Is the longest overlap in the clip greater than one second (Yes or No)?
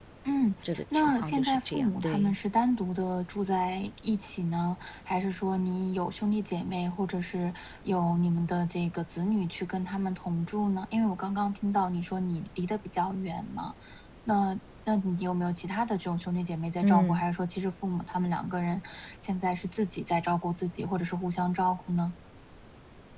Yes